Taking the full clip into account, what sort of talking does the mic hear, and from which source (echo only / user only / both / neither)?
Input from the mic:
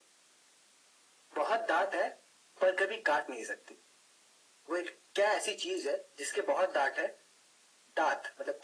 echo only